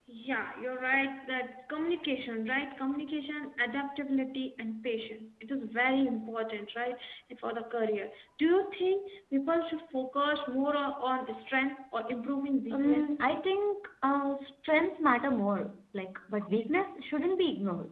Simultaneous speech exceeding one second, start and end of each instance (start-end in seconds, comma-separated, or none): none